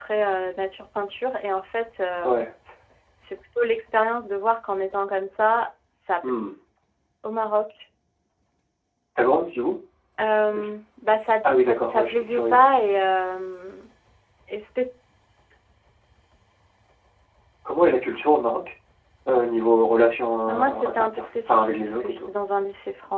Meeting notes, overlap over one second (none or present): present